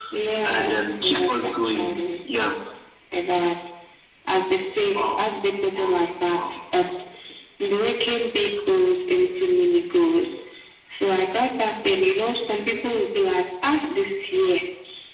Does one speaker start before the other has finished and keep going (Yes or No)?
Yes